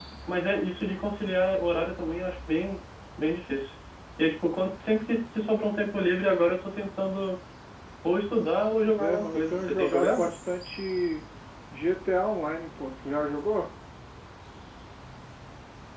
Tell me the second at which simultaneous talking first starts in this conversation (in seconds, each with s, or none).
8.7 s